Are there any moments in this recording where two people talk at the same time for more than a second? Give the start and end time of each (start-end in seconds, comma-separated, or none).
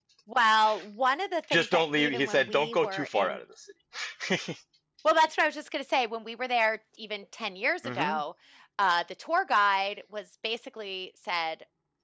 1.5-3.4